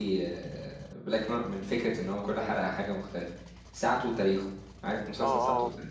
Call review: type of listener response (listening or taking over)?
taking over